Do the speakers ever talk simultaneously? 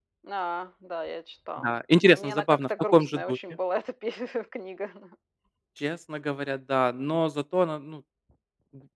Yes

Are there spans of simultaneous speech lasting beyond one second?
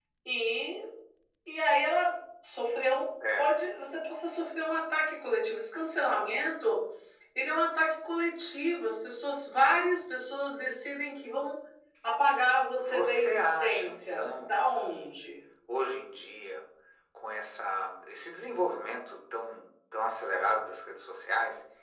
Yes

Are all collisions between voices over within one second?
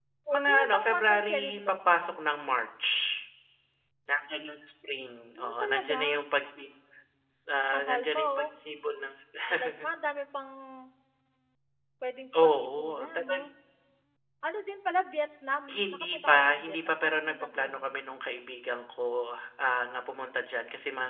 No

